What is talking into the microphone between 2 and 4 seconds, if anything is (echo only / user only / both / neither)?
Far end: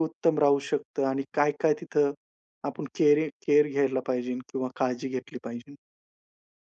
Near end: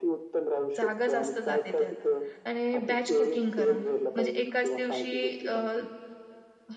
both